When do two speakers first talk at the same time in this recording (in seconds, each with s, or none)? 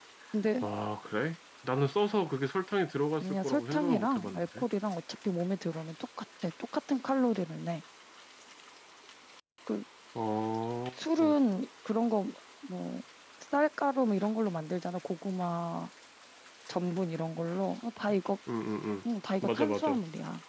3.2 s